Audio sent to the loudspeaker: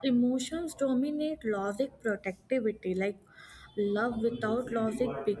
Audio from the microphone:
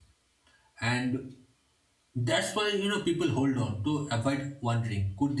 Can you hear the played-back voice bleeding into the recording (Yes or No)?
No